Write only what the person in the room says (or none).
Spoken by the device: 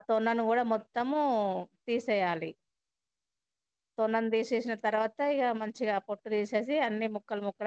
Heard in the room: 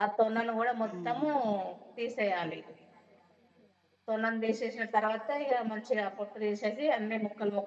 ఊహు